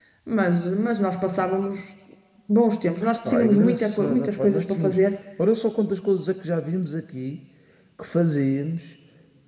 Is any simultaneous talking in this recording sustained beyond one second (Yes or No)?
Yes